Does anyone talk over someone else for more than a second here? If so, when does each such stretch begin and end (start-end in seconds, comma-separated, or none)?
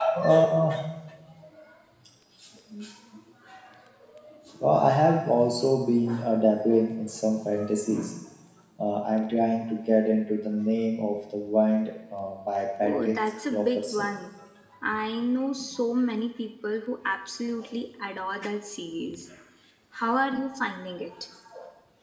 12.8-14.1